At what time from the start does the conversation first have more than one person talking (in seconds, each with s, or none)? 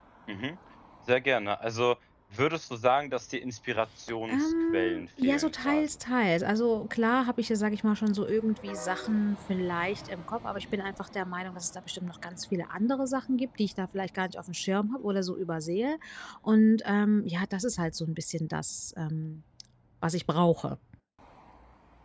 4.3 s